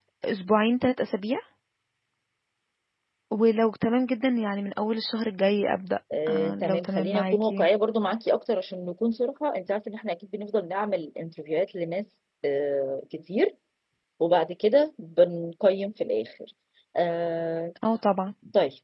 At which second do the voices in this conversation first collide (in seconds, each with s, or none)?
6.1 s